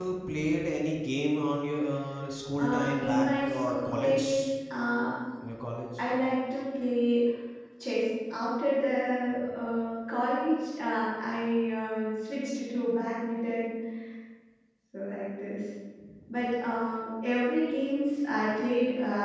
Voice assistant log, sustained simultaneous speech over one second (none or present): present